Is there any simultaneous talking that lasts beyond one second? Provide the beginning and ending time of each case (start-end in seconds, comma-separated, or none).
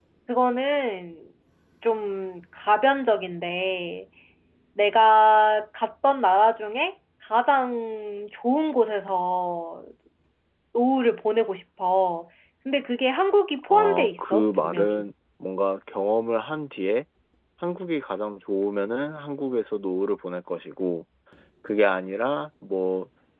13.7-15.1